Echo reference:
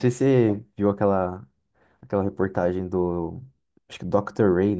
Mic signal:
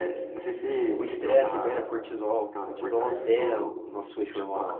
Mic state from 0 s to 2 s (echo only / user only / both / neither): both